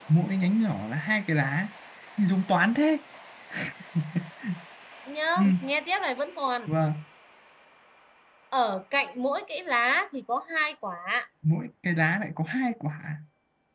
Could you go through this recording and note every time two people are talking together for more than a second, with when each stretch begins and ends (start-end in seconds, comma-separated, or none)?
none